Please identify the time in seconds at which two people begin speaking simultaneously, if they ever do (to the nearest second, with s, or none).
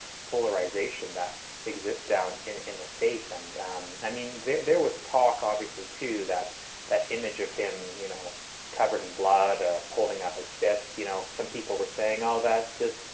none